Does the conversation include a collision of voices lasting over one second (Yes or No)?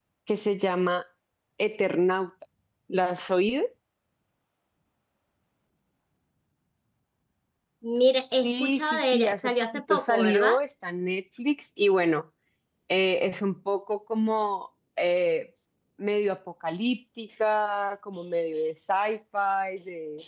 Yes